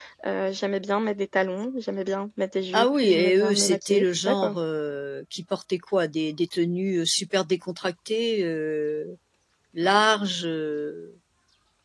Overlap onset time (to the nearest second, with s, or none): 3 s